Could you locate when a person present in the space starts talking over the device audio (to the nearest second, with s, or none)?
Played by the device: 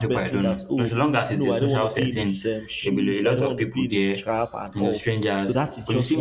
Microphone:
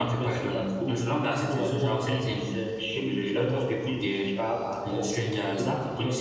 none